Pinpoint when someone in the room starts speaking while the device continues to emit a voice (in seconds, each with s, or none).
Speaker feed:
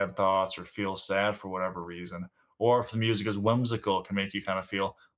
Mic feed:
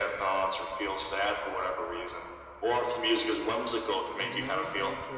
4.1 s